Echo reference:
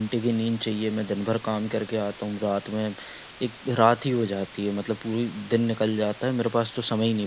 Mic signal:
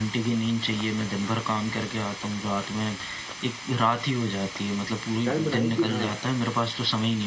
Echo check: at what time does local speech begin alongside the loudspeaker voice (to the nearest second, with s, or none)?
5 s